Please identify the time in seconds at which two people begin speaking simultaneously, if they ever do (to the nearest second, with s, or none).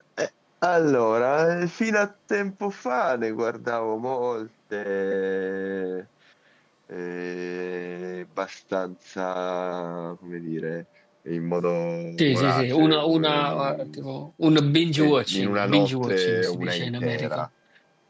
12 s